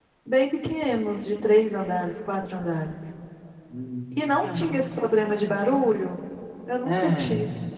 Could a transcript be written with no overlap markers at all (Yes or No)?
No